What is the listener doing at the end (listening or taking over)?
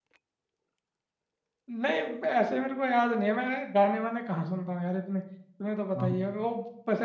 listening